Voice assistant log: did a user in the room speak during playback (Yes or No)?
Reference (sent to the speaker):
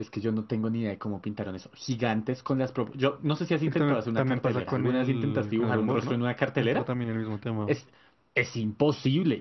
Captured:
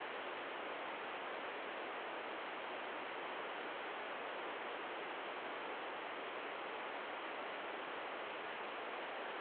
No